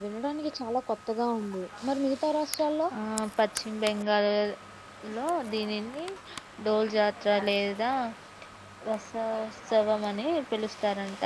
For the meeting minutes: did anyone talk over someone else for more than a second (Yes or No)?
No